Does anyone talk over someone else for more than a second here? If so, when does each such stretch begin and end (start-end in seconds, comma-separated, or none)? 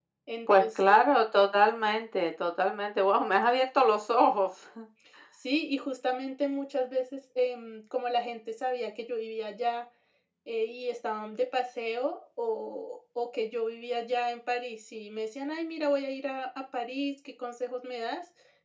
none